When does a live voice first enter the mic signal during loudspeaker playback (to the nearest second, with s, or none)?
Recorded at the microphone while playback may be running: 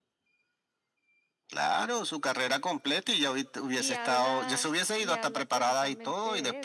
4 s